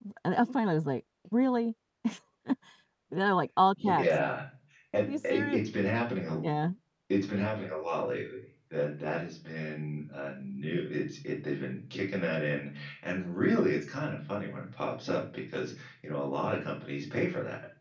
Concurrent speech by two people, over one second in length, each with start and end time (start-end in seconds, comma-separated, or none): none